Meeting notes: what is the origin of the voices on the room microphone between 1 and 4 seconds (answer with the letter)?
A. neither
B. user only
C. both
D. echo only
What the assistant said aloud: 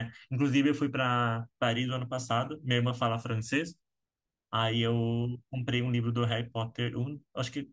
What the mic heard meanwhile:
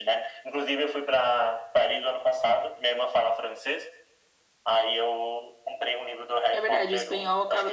D